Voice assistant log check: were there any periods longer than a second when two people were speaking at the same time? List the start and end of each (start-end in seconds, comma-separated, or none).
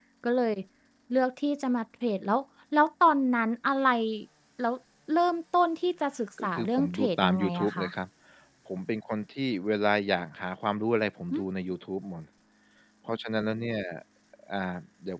6.4-7.9